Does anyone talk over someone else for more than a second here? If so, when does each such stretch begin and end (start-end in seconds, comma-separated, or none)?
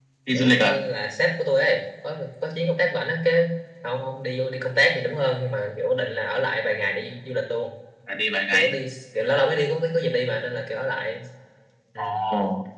none